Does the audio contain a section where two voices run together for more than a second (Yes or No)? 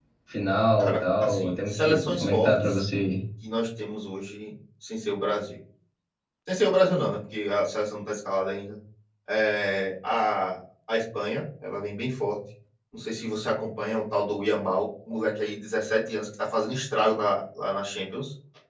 Yes